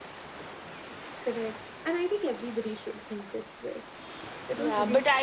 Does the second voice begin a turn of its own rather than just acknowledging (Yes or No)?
Yes